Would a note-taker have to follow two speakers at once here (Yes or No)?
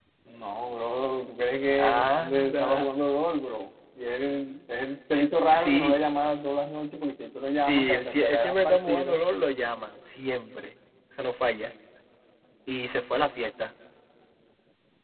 Yes